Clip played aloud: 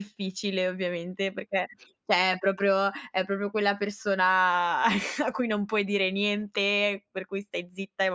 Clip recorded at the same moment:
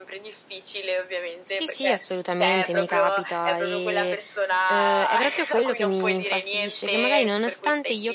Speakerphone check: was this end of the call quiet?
No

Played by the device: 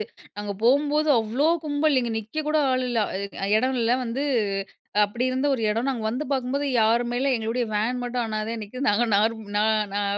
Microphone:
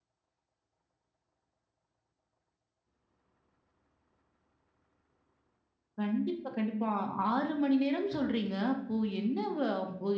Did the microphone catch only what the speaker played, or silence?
No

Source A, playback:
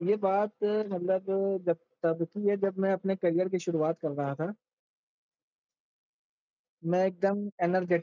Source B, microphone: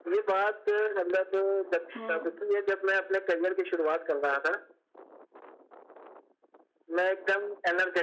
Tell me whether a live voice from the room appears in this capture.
Yes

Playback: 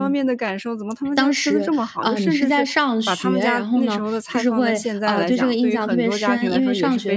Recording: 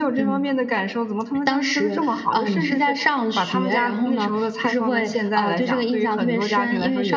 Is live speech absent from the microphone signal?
Yes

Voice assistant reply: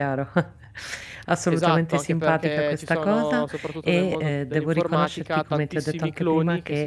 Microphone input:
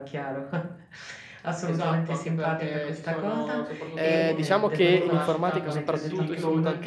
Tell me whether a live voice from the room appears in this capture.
Yes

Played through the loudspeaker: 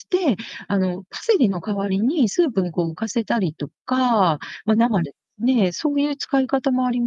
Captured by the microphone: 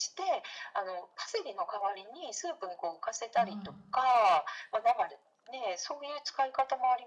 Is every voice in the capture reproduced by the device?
No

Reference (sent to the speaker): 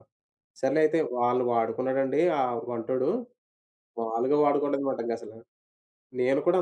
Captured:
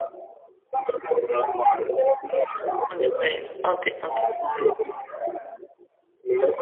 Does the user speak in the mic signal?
Yes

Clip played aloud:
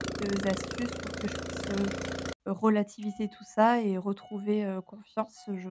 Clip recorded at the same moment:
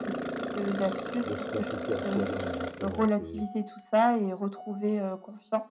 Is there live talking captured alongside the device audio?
Yes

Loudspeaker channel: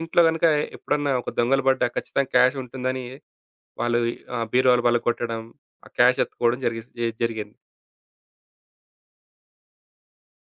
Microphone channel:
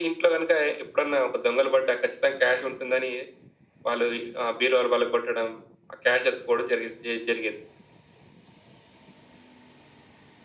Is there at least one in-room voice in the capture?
No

